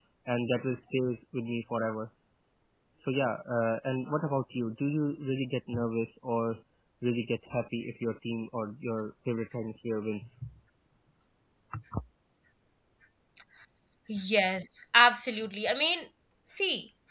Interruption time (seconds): none

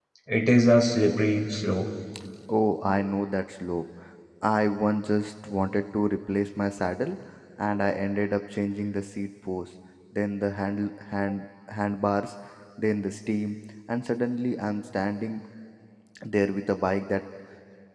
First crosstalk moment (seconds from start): none

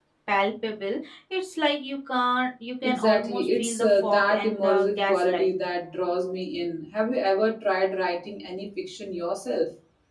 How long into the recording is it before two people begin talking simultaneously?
2.8 s

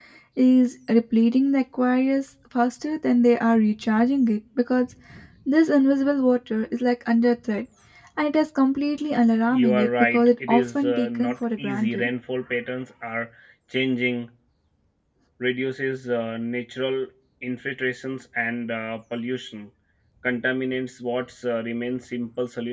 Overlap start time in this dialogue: 9.5 s

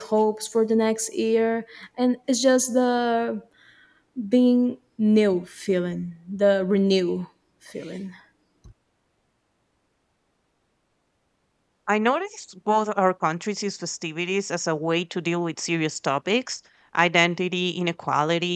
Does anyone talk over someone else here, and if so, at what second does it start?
none

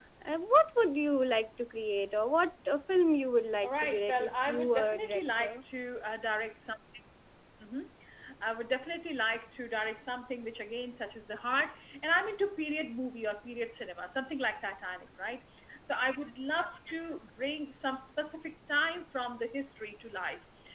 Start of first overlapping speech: 3.6 s

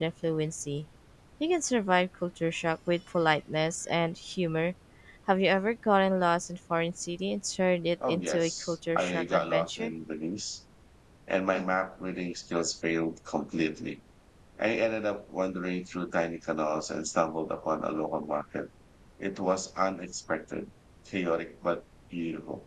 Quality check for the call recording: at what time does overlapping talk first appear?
8.0 s

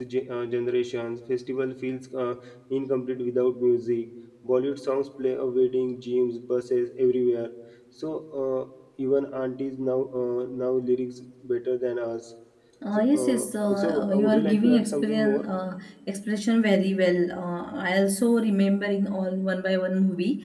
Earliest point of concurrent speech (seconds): 12.9 s

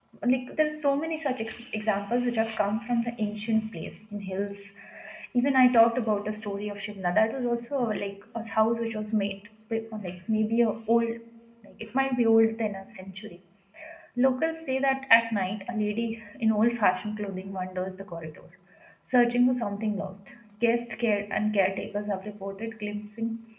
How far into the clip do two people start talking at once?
none

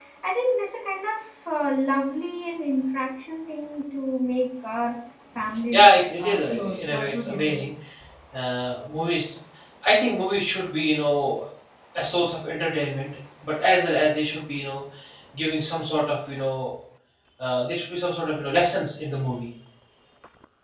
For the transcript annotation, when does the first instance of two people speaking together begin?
5.7 s

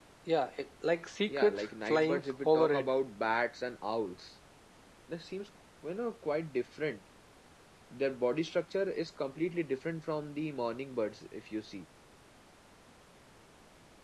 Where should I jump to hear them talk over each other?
1.3 s

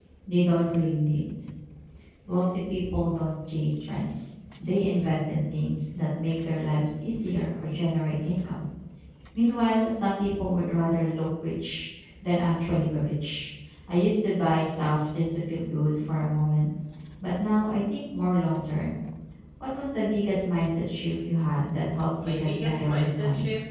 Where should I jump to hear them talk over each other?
22.2 s

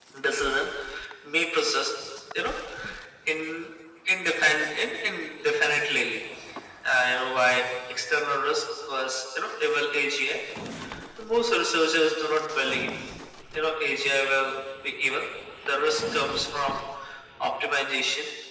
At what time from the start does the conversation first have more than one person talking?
none

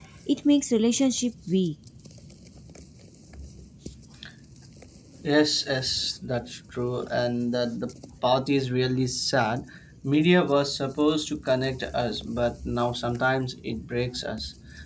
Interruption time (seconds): none

